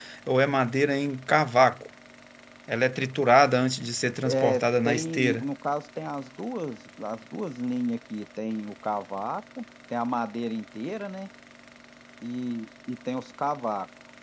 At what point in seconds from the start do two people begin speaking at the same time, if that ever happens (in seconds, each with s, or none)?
4.2 s